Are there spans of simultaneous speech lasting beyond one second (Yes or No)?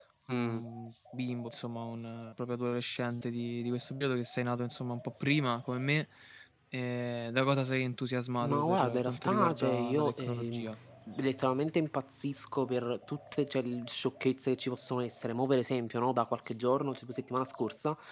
Yes